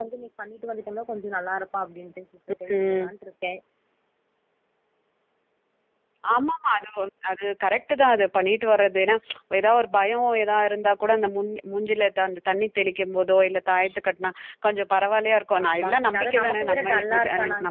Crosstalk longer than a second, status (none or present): present